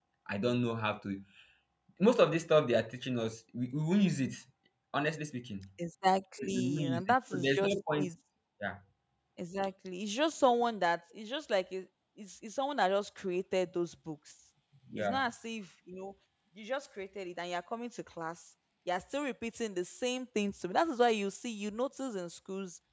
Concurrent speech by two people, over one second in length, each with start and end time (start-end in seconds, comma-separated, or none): 6.4-8.1